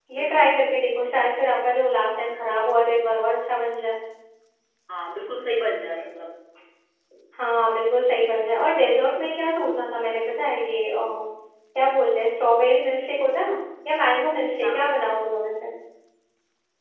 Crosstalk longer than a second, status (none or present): none